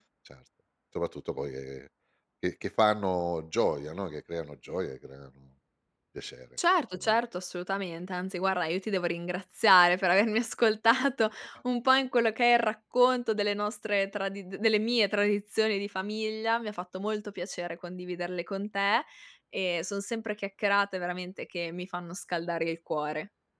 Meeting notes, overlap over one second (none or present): none